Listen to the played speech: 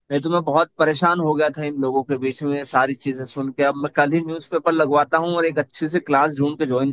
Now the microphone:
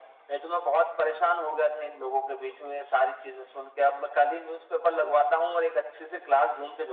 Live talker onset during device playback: none

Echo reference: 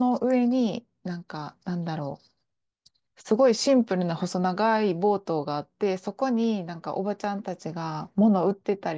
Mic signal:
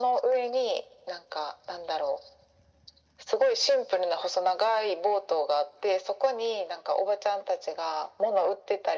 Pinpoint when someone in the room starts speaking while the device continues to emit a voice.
none

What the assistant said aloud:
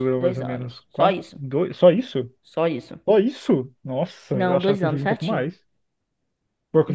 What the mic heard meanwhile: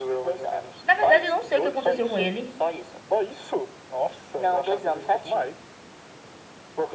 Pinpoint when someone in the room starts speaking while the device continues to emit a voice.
0.8 s

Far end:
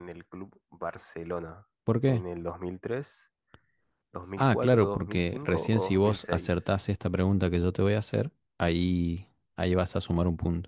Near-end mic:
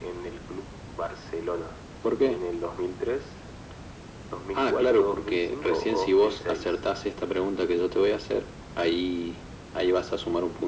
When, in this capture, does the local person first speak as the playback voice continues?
none

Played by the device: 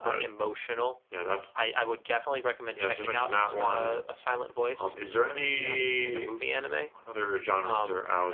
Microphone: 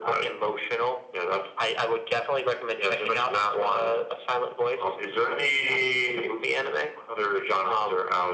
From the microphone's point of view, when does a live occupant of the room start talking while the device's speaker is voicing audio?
none

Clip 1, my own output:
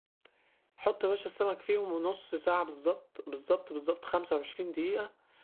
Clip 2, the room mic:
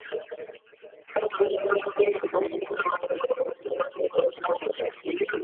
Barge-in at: none

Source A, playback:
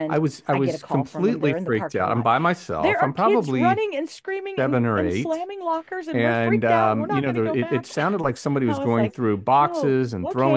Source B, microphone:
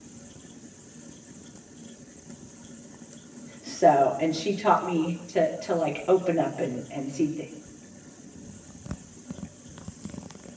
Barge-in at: 3.6 s

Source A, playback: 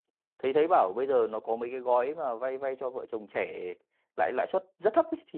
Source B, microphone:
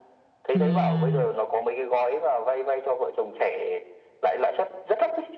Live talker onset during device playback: 0.5 s

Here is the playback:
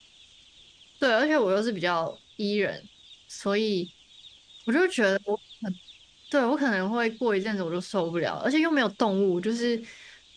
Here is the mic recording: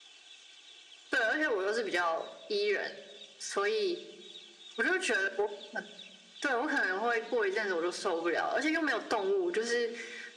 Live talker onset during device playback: none

